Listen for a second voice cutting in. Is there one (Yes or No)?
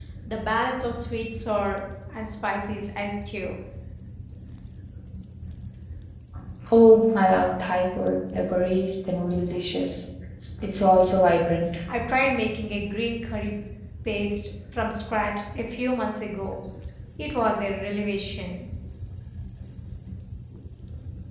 No